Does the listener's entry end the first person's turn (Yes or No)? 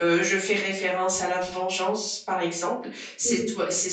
No